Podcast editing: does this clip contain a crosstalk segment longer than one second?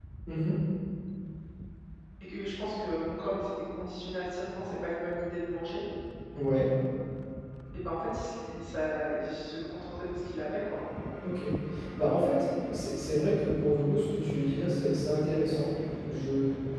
No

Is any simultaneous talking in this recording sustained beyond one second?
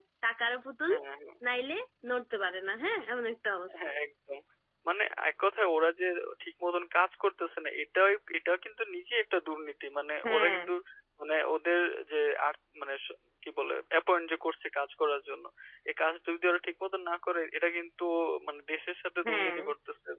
No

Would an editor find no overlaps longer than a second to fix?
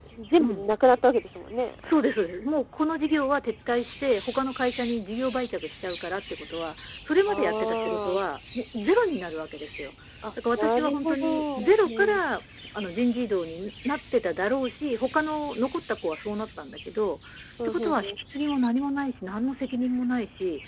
No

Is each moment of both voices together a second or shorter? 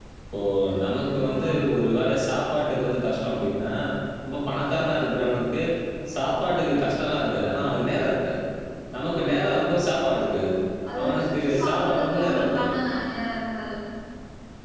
No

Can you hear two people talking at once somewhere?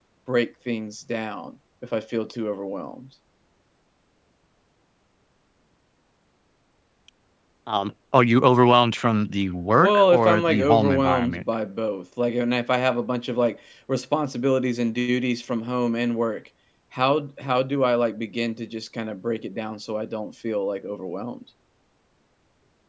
Yes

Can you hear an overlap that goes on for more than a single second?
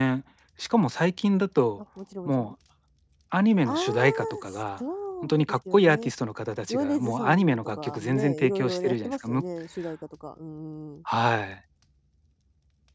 Yes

